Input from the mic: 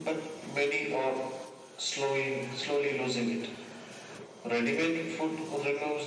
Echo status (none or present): present